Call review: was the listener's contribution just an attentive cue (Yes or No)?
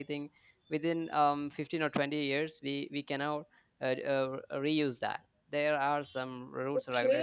No